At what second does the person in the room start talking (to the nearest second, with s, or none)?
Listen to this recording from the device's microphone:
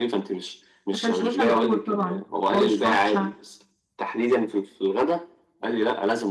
1 s